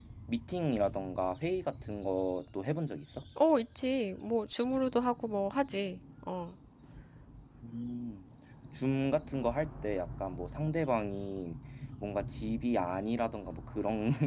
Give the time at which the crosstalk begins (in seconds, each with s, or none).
none